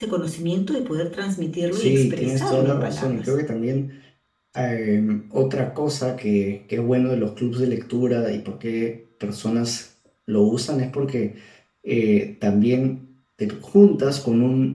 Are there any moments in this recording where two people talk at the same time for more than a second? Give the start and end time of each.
1.7-3.3

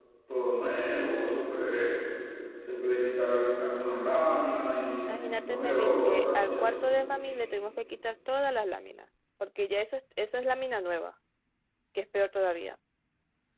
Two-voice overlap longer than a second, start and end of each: 5.1-6.8

